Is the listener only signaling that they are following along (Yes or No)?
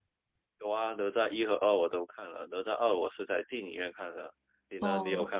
No